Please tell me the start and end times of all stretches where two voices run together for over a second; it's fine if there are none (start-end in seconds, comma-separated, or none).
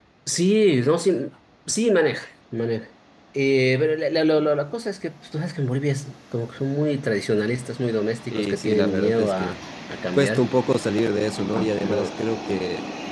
8.3-9.6